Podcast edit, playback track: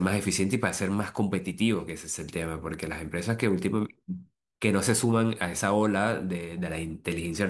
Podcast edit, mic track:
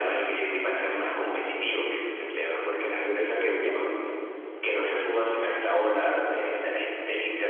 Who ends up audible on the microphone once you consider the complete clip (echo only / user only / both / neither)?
both